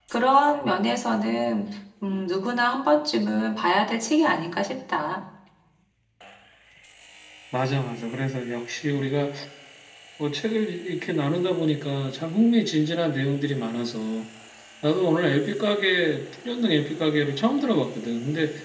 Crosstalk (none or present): none